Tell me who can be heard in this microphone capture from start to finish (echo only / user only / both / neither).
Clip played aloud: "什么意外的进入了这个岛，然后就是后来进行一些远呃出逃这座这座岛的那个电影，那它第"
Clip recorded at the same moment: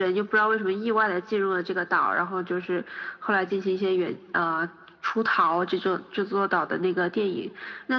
echo only